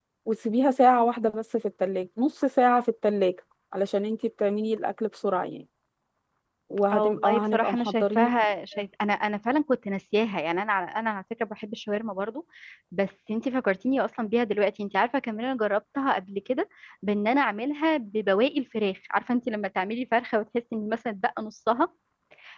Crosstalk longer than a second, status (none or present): present